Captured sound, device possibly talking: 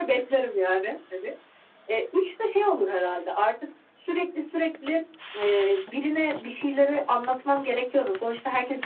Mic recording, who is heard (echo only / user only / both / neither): echo only